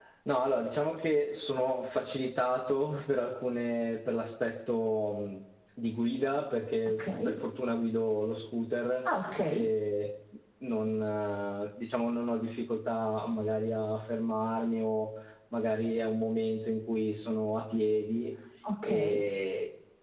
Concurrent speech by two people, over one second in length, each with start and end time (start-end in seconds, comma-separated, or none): none